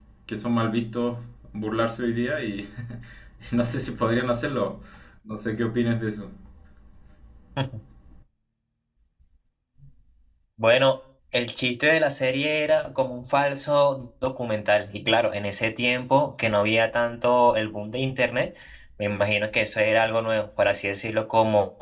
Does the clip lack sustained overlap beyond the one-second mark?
Yes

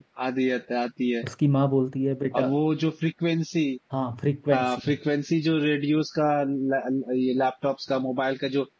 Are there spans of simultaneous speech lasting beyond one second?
No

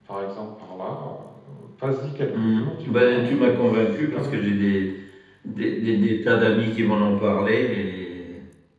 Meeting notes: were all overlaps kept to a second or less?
No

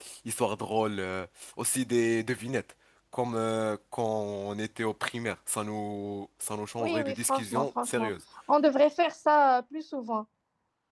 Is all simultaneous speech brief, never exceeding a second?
No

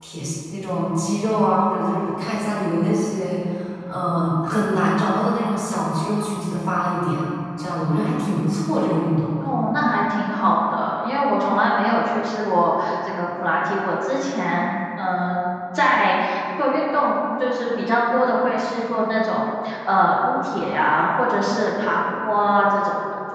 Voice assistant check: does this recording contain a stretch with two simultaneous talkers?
No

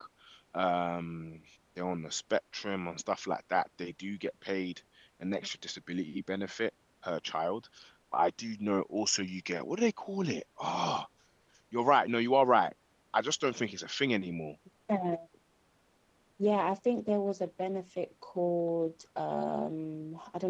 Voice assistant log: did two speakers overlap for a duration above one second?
No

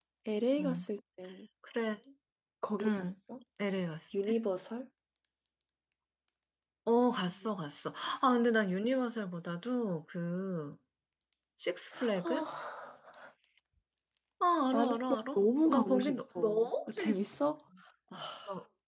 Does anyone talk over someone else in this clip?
Yes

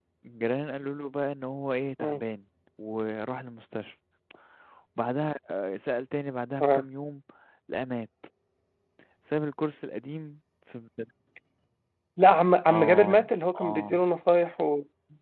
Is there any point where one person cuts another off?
Yes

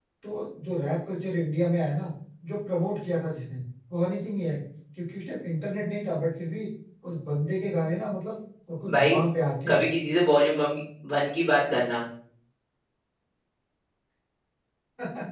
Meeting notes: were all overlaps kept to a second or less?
Yes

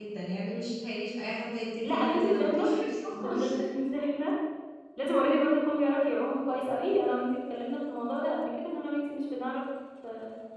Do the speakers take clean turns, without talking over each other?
No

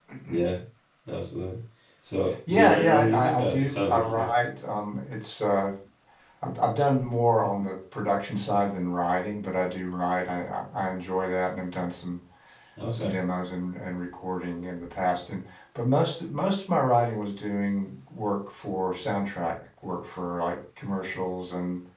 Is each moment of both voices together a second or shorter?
No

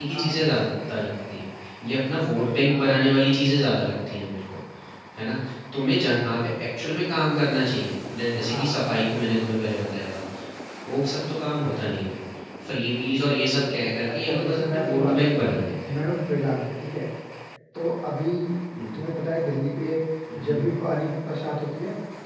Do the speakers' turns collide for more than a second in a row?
Yes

